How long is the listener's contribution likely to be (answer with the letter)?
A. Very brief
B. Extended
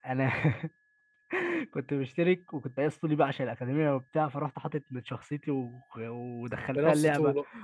A